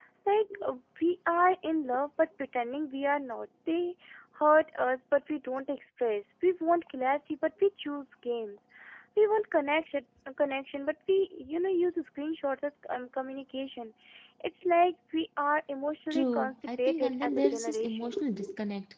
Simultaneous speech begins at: 16.1 s

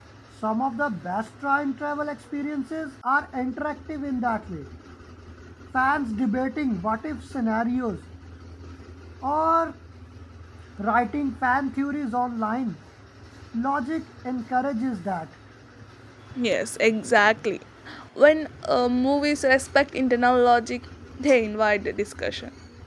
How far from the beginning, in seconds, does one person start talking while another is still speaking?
none

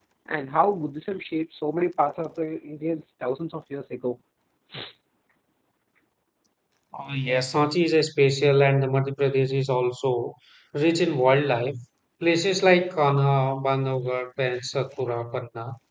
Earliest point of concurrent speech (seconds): none

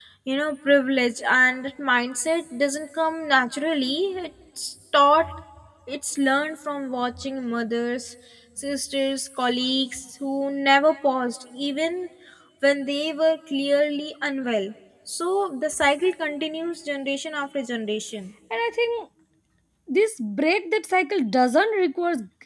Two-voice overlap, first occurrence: none

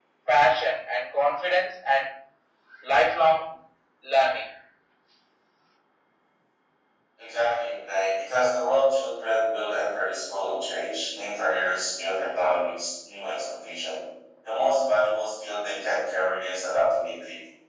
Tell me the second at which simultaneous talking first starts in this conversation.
none

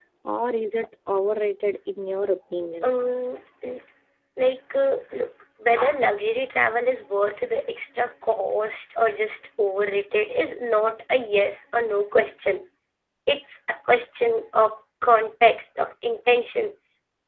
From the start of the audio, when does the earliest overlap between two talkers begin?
none

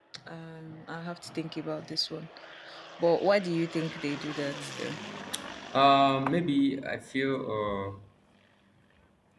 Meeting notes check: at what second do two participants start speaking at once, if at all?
none

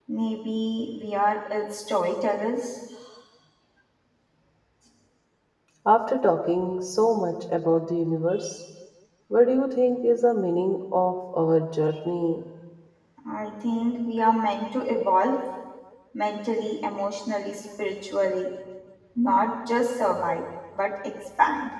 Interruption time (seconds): none

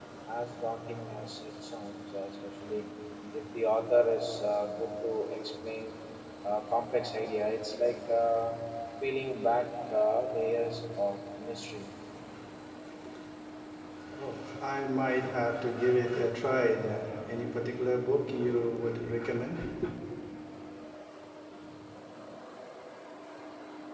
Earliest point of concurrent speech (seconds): none

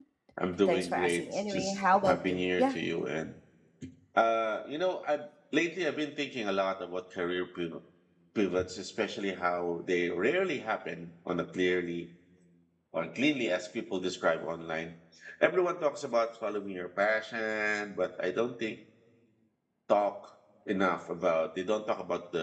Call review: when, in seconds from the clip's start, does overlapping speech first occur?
0.7 s

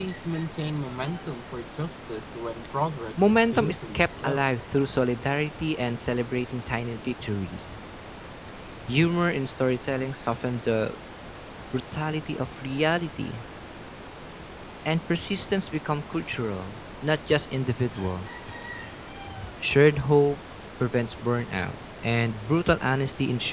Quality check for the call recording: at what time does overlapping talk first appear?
3.2 s

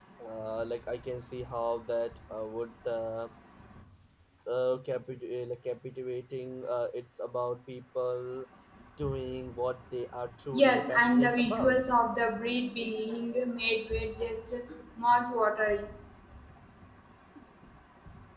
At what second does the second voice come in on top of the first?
10.5 s

